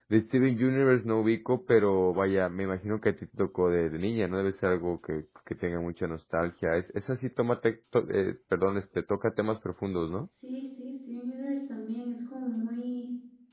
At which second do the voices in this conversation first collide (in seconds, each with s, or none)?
none